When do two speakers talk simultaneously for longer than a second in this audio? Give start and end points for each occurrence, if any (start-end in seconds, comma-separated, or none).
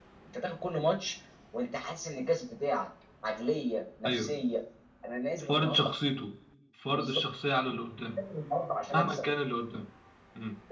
none